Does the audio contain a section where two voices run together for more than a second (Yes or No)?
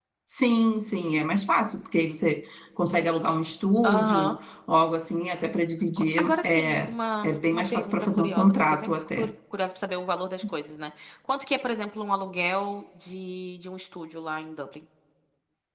Yes